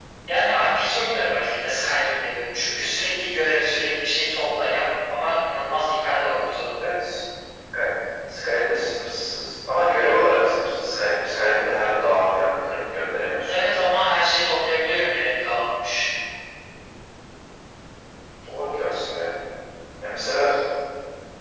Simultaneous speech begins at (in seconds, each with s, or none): none